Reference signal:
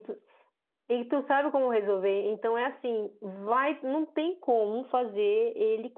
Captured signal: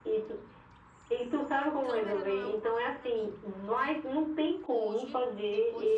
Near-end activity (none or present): present